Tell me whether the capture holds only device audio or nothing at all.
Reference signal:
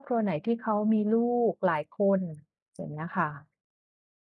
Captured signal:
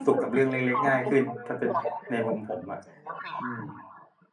No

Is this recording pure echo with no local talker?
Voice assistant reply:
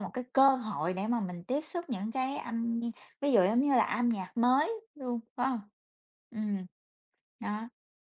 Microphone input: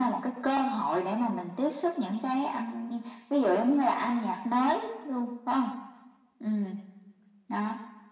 Yes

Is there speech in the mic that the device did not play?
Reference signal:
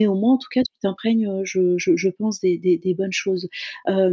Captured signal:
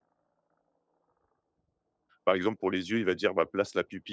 Yes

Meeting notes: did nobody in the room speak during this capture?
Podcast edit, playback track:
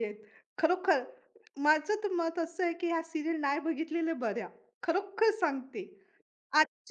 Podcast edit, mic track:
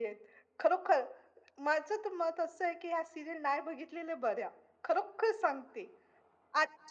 Yes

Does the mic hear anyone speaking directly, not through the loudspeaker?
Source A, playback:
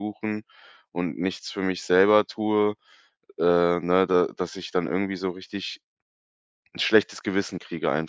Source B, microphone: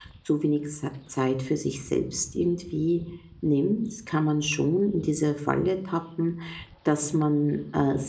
Yes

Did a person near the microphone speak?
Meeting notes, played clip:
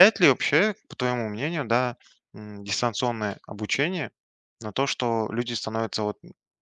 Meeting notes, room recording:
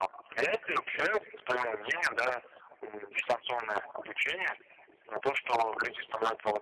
No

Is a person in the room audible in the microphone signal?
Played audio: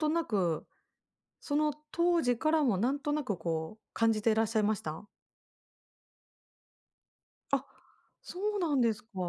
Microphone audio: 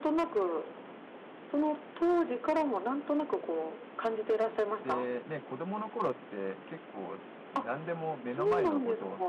Yes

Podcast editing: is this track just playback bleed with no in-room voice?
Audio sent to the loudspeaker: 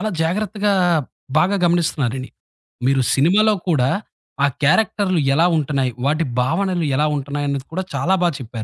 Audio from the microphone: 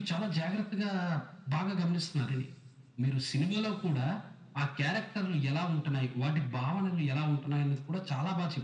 Yes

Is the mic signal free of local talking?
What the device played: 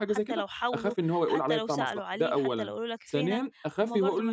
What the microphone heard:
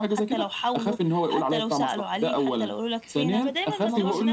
No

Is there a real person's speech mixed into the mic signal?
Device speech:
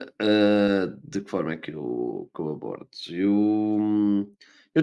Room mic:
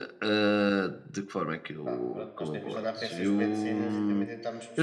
Yes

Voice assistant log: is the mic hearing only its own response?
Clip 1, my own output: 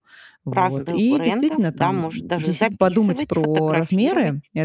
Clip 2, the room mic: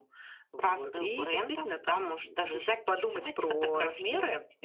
Yes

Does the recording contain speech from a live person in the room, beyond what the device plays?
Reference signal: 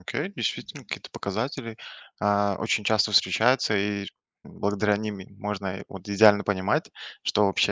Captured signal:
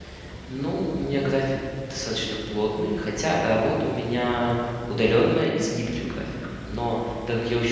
Yes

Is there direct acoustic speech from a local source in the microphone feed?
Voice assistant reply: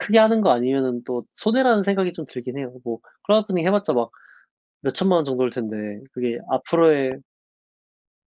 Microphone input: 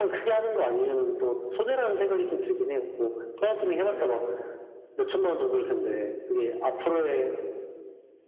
Yes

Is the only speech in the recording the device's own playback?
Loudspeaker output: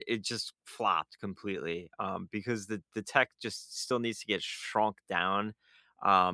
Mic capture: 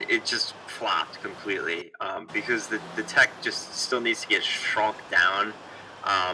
Yes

